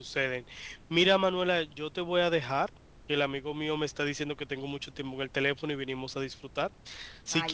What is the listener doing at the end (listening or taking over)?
listening